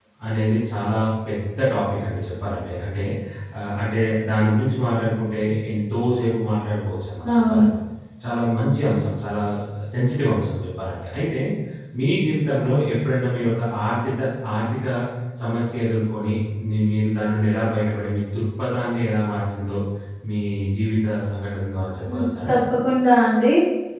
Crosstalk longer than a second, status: none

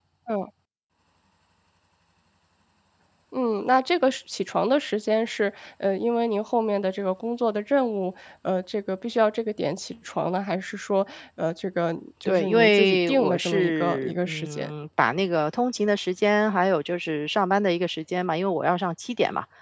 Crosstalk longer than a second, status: present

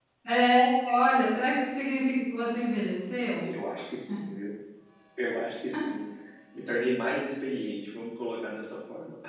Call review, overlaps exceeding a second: none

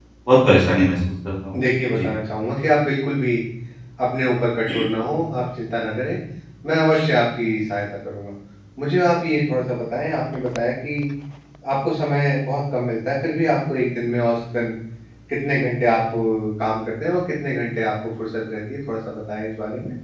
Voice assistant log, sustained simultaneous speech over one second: none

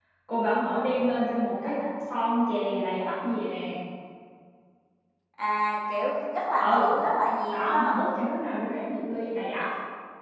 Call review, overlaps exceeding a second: none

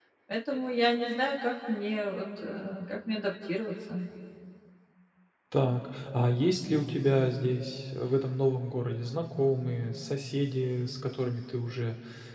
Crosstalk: none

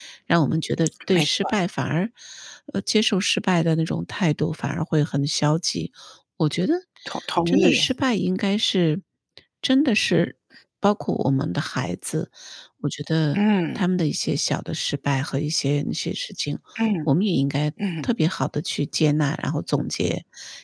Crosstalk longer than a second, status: none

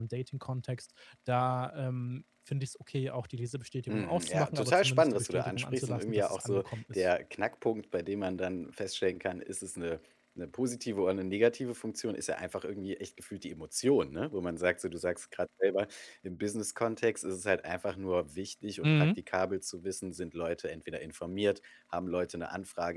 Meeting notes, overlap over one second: present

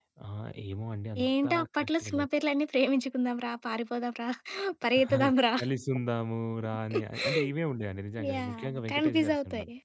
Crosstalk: present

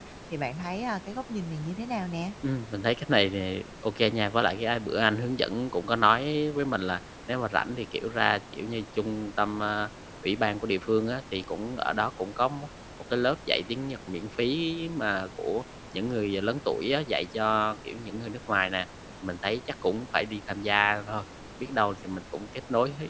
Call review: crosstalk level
none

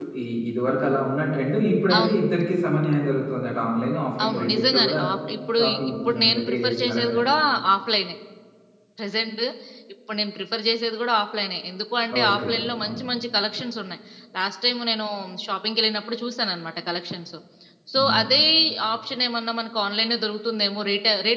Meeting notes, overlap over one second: present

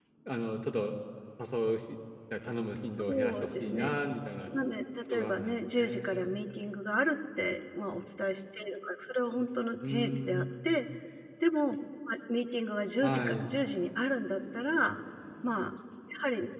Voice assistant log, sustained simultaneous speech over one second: present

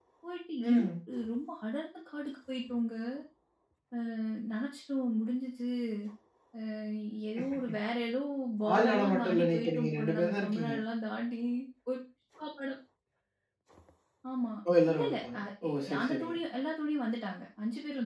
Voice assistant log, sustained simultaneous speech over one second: present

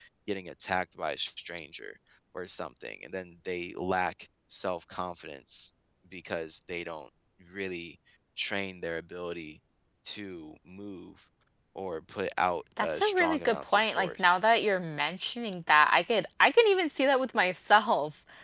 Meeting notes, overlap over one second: present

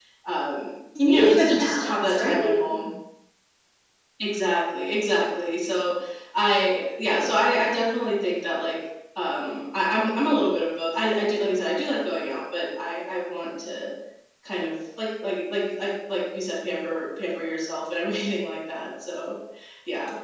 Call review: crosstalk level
present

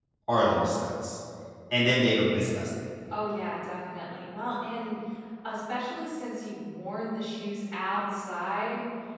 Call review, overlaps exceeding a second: none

